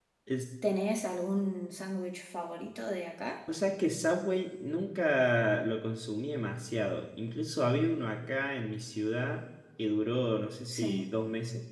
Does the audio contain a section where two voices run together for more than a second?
No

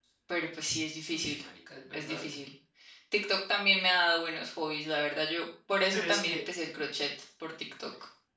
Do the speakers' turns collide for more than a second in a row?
No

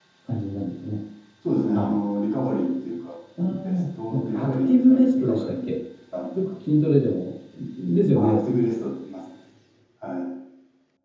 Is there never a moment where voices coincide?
No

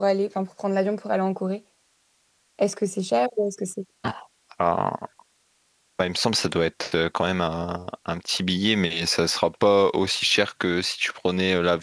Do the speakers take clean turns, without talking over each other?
Yes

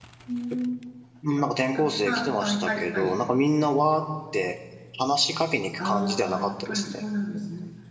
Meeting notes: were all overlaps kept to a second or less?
No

